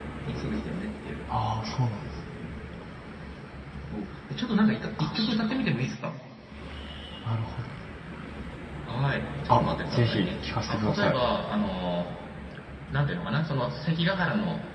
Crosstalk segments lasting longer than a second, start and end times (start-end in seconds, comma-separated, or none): 9.5-11.2